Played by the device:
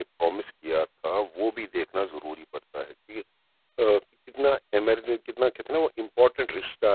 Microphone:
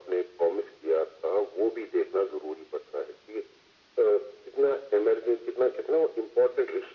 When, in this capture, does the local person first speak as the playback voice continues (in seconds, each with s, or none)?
none